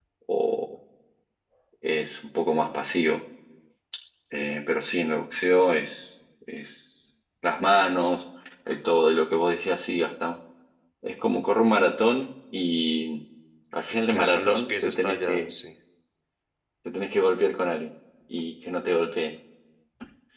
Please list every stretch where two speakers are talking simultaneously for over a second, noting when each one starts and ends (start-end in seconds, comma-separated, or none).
14.1-15.5